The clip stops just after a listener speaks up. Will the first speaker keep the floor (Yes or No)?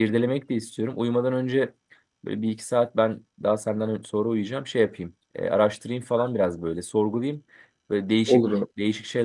Yes